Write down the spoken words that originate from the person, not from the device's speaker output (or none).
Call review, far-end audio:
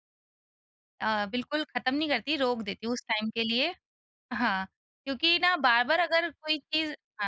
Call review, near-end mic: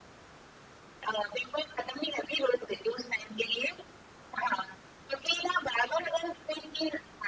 none